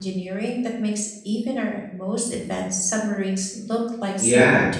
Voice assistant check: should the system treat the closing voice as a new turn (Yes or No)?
Yes